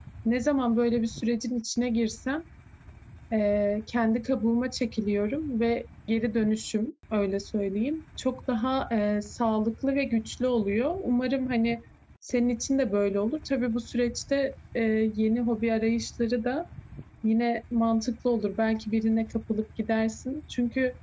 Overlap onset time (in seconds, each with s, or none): none